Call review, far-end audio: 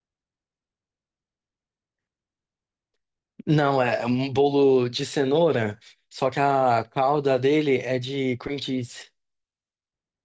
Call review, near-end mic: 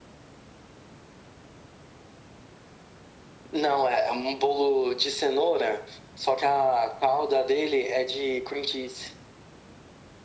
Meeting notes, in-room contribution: none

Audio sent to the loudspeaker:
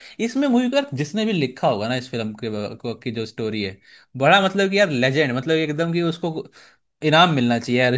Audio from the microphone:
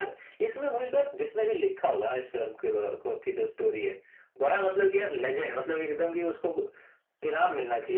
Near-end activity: none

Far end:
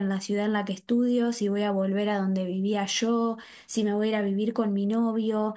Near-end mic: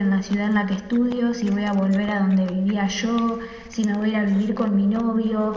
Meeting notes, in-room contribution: none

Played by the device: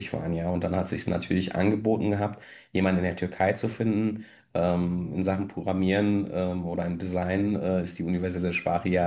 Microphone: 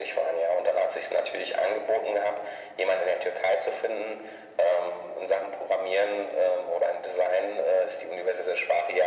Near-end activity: none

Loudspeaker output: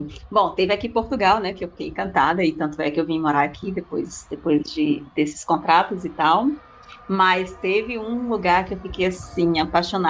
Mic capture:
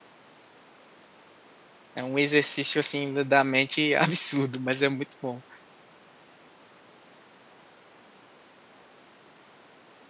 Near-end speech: present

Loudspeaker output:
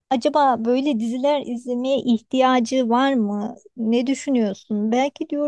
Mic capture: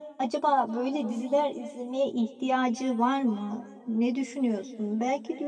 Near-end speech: none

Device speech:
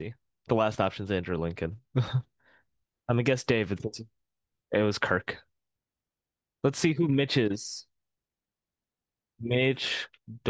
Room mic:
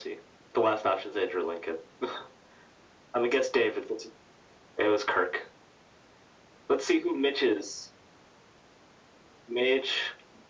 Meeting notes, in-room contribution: none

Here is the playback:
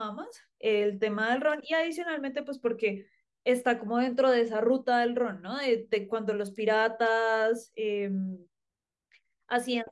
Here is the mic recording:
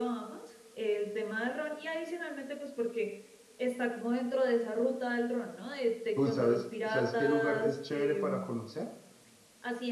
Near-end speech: present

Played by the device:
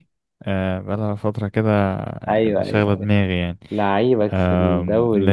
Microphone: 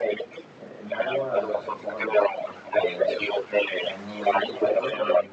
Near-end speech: present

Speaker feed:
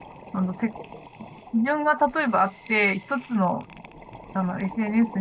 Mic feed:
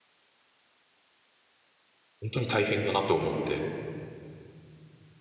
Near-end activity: present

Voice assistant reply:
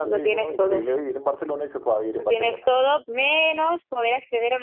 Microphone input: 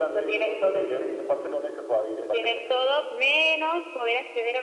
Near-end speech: none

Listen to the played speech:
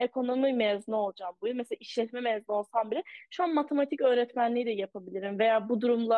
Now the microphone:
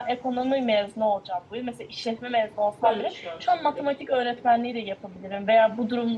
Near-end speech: present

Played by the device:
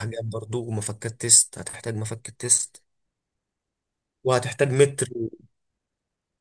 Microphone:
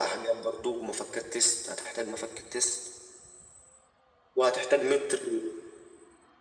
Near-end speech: none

